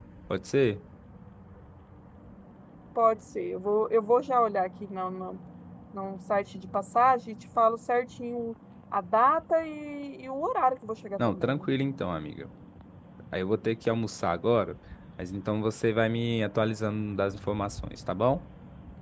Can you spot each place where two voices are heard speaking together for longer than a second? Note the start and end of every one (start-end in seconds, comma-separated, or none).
none